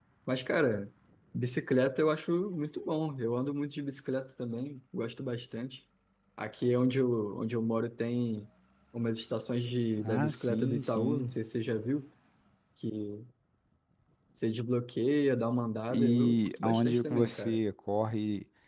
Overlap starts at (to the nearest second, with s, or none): 10 s